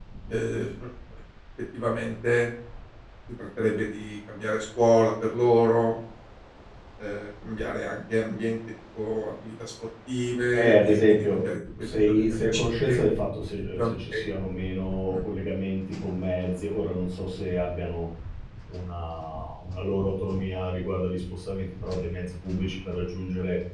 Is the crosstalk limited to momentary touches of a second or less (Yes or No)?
No